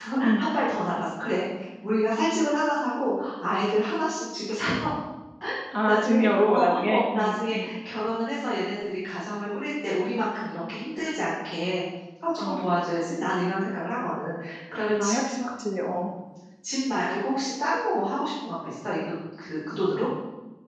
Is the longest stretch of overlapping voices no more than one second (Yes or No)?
No